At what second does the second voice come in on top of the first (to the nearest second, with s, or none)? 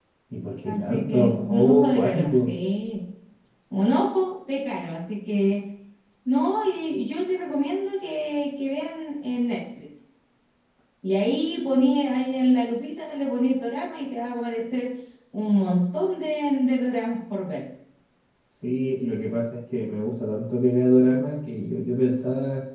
1 s